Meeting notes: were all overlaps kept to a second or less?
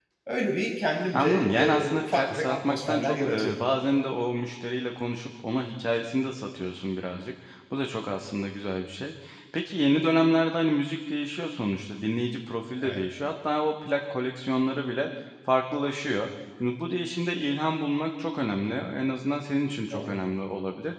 No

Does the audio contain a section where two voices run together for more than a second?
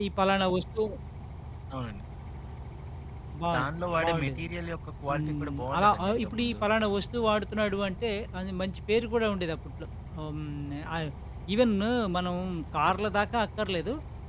Yes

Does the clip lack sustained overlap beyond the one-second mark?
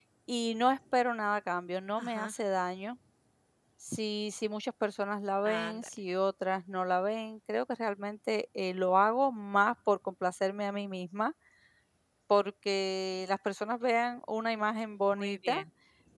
Yes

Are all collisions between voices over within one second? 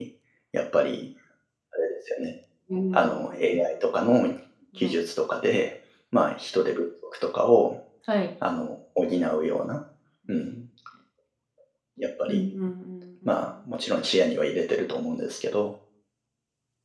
No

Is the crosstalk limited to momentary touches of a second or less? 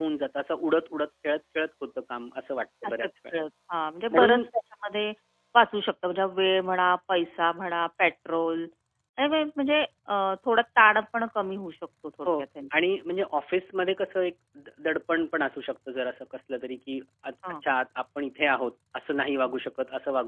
Yes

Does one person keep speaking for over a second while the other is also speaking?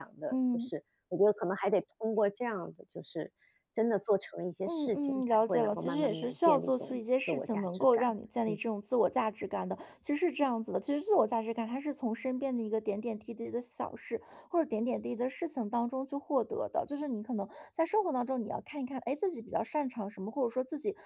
Yes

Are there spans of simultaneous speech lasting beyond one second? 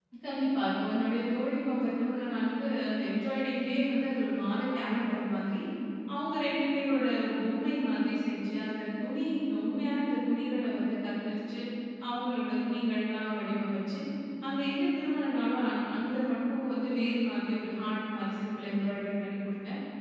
No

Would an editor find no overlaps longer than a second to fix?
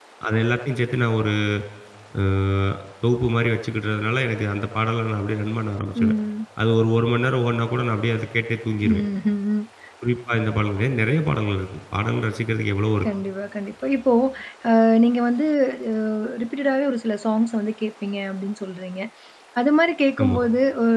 Yes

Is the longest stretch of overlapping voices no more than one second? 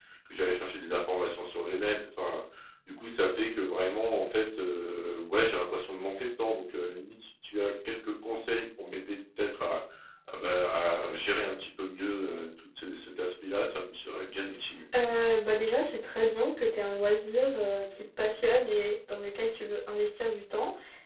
Yes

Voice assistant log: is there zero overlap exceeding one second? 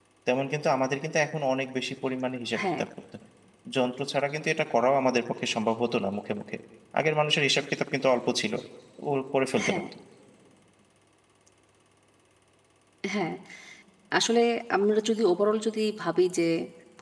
Yes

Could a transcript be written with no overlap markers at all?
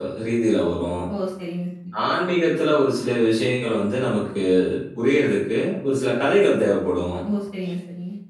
Yes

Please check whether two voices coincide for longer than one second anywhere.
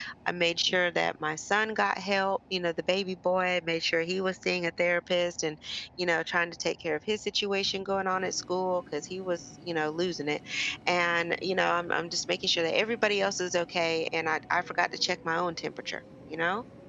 No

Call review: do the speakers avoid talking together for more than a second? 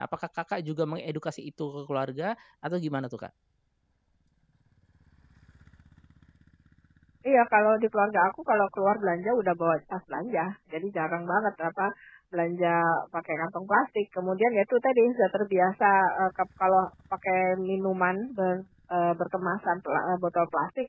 Yes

